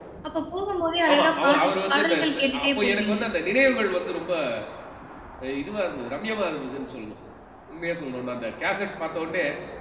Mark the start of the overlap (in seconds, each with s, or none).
1.1 s